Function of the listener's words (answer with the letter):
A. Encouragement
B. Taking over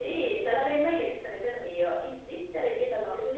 A